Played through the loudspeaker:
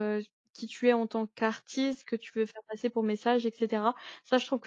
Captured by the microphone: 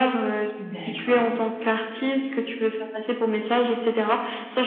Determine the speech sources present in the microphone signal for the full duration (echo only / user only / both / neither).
both